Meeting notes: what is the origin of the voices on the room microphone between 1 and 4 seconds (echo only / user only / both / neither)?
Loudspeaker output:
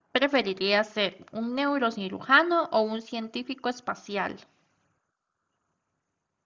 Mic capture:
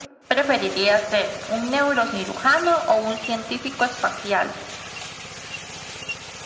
echo only